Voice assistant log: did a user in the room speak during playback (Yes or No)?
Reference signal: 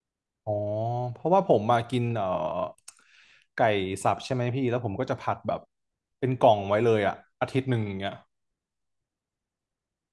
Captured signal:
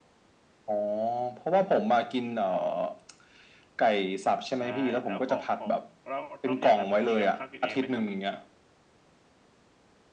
Yes